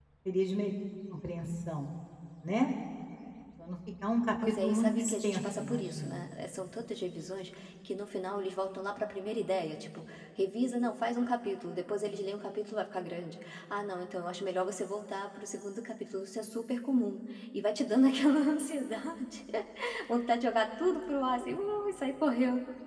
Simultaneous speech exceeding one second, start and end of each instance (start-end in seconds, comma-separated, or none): 4.6-6.2